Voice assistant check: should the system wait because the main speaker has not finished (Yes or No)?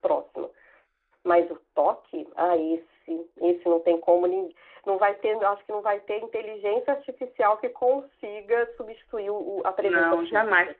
No